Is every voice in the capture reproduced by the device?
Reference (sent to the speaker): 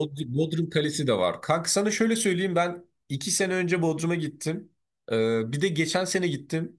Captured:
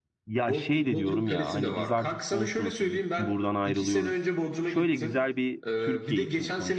No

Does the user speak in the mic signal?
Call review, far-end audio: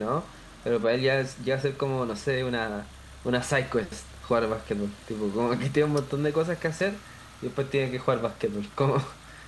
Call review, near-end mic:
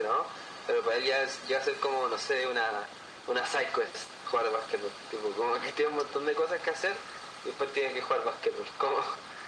No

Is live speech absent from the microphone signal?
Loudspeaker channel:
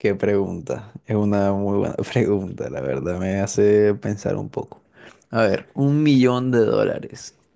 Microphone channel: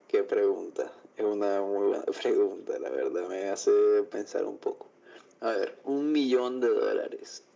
Yes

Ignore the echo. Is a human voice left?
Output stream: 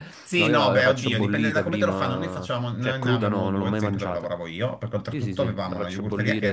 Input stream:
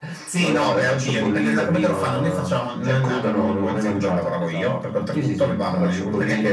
Yes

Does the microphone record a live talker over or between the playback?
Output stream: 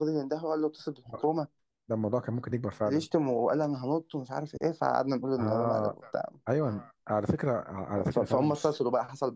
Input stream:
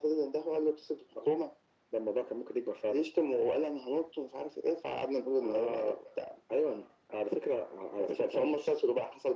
No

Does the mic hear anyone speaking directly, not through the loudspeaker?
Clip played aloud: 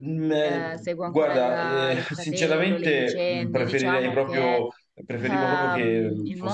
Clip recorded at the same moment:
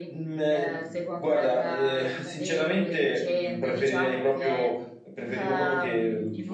No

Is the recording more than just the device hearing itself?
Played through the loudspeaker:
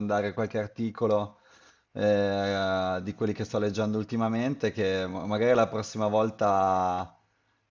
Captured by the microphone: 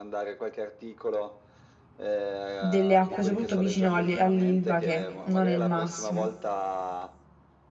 Yes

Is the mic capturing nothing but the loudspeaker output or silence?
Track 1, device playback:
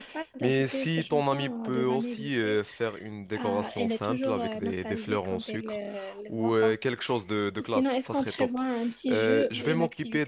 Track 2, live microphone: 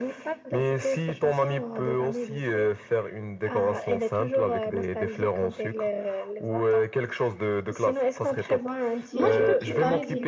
No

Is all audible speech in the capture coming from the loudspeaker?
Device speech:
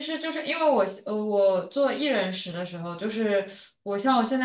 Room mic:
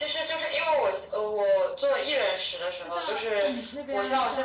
No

